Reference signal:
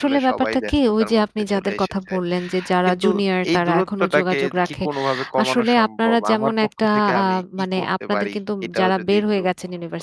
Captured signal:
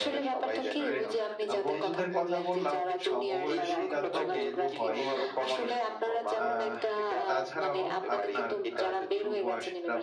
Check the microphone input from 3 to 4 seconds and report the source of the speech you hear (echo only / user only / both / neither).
both